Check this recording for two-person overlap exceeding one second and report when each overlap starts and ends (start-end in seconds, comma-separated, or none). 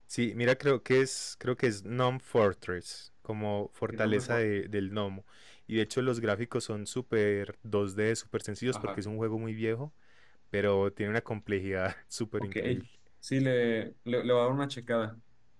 none